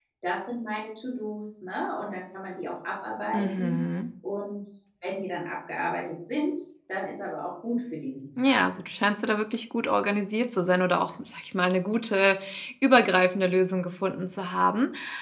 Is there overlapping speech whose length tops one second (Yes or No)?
No